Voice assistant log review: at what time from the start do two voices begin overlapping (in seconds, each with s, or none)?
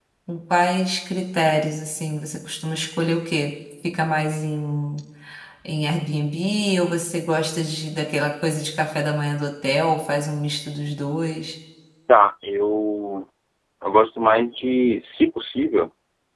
none